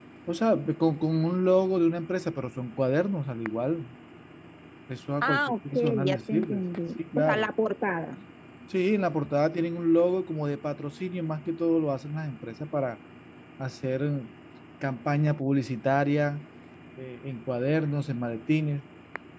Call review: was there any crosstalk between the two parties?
Yes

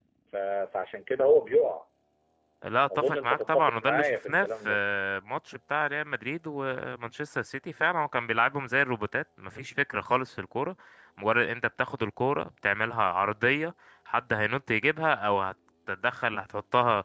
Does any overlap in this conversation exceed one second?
Yes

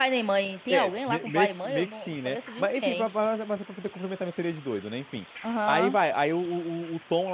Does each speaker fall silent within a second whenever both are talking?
No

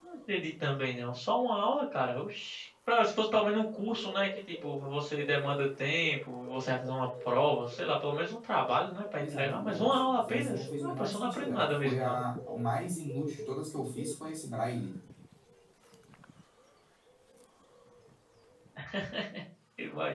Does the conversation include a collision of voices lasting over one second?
Yes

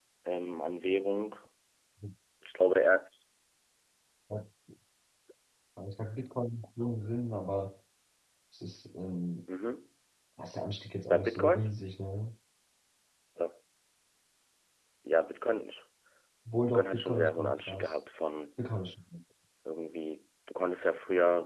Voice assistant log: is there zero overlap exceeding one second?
No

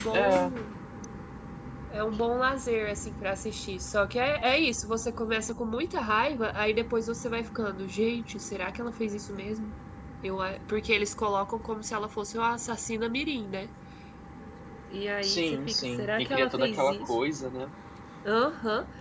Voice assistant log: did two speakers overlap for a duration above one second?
Yes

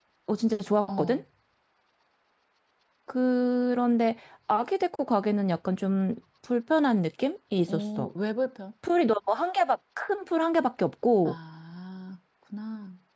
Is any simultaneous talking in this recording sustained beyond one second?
No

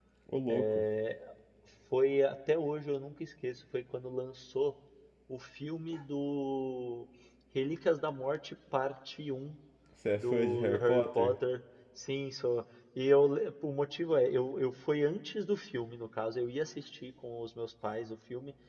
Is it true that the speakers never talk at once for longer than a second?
No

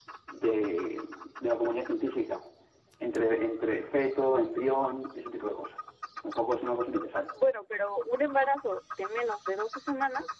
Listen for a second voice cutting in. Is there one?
No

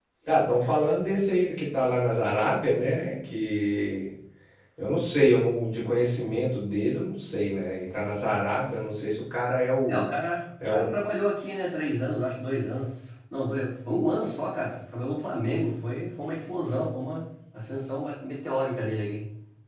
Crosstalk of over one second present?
No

